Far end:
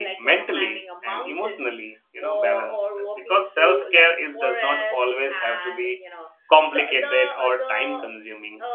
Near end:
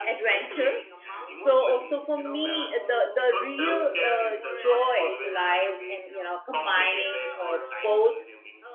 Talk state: both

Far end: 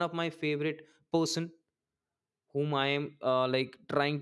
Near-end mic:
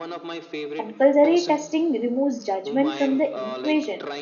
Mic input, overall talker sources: both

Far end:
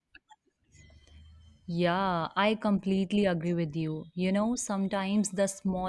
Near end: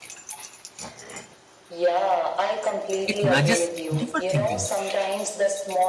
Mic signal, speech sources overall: both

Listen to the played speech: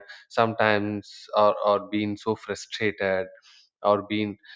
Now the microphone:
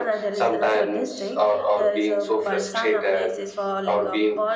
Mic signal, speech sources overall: both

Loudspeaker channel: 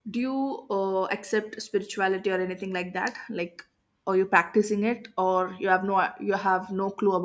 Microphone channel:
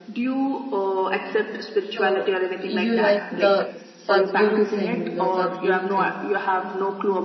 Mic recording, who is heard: both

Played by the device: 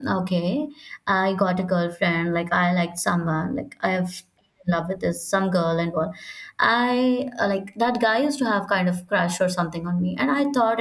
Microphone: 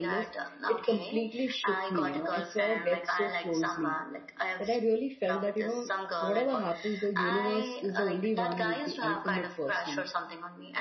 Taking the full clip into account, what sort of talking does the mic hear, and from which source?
both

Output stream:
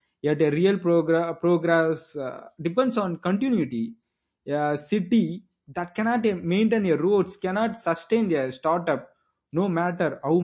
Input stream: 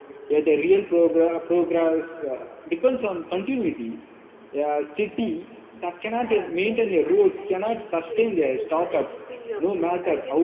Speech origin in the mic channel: both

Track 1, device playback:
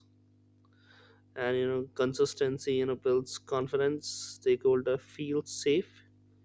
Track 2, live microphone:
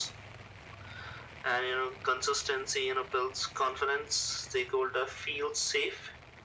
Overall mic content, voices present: echo only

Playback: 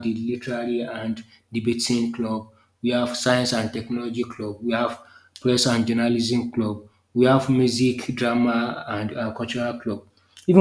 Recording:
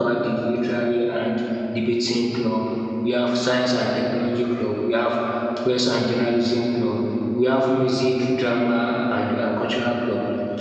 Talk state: echo only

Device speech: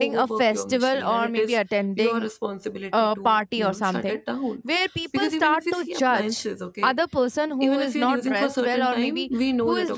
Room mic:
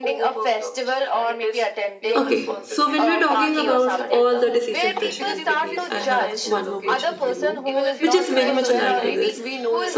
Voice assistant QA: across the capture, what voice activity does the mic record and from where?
both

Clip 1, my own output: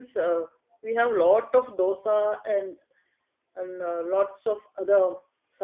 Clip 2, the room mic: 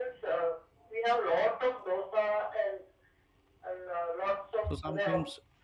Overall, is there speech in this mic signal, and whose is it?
both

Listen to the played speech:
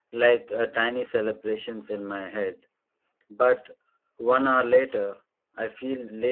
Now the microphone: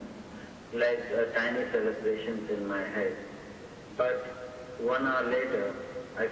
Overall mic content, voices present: echo only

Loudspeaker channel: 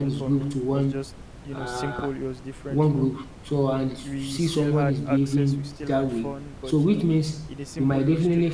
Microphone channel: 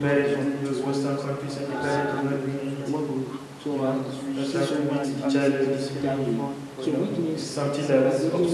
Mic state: both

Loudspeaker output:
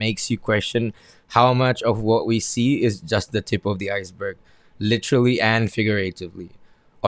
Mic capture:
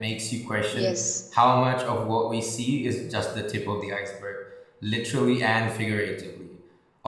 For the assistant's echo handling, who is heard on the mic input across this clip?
both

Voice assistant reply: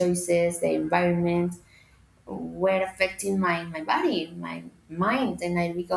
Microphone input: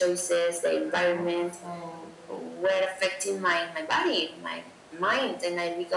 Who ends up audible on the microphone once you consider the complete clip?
both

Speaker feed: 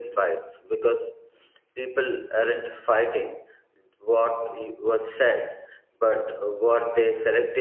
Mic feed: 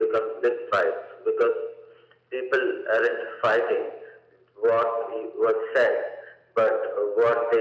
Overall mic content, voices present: echo only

